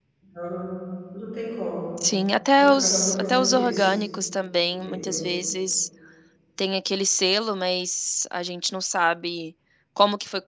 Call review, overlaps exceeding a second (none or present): present